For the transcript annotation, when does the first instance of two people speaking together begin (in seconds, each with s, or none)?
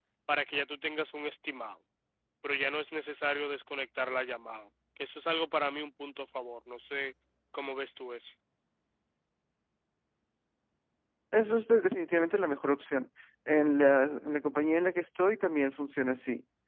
none